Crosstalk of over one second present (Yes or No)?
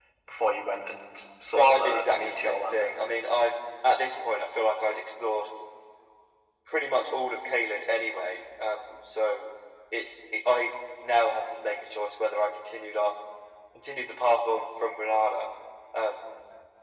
Yes